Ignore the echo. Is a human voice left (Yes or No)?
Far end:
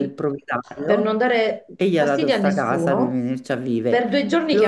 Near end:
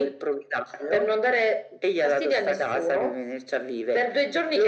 No